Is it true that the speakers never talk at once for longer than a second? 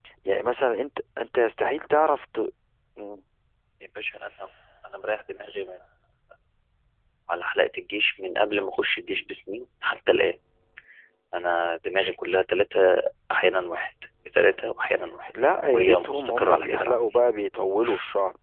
No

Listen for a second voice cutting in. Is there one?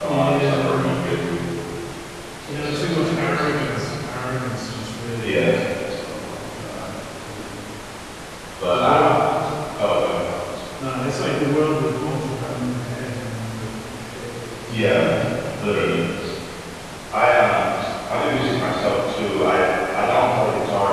Yes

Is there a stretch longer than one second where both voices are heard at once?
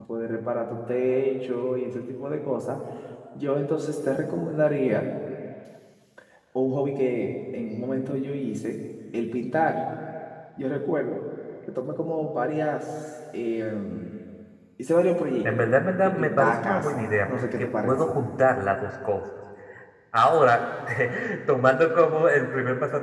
Yes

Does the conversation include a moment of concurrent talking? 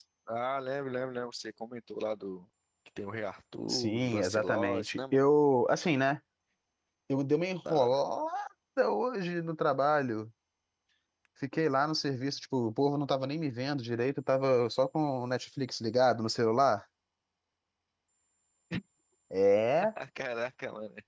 Yes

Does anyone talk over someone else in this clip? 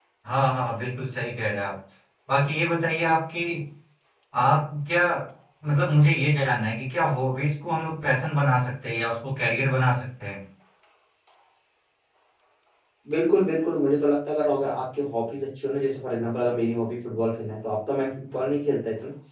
No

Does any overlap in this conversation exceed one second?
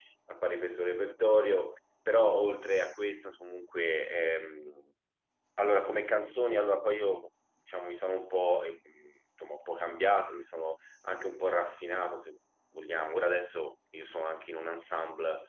No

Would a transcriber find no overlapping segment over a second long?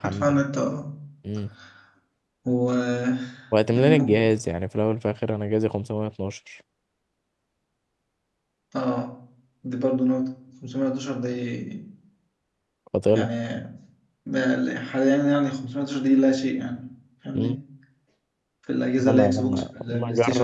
No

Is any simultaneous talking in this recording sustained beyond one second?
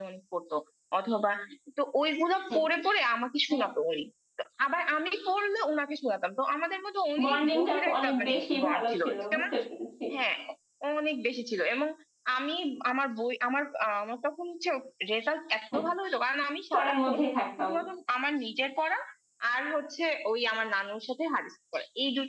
Yes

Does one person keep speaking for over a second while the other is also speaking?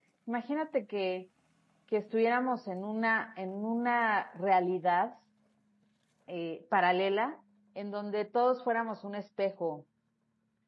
No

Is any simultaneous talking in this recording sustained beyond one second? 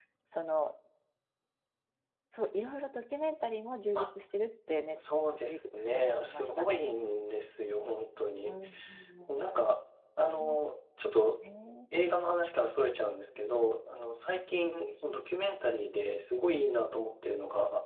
Yes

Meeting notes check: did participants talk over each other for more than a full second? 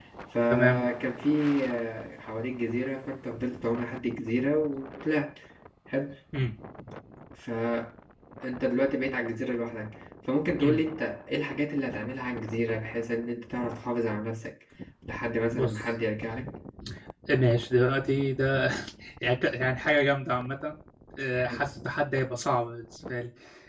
No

